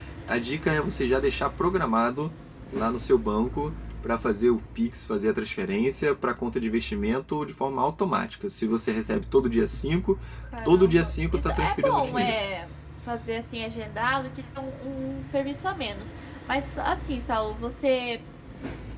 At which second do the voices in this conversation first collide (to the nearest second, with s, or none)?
11 s